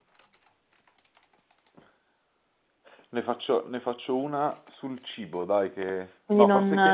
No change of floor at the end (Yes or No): No